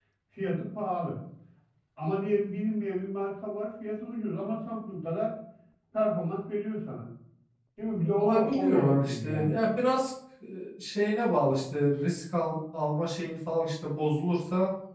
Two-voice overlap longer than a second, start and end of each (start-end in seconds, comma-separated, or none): 8.2-9.6